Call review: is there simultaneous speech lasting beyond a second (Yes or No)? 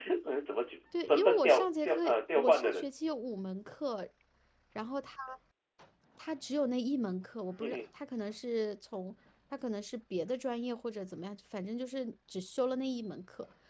Yes